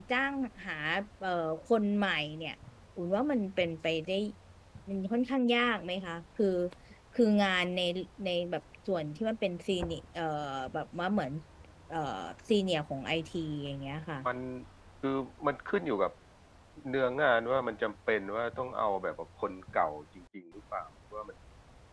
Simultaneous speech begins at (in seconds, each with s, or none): none